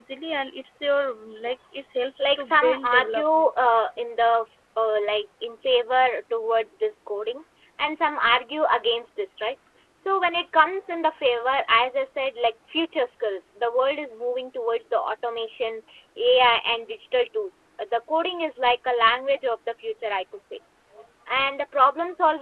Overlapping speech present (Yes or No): Yes